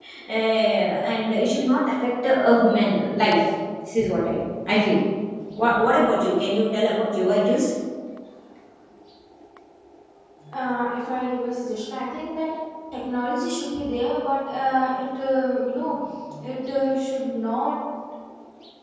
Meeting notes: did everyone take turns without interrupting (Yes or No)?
Yes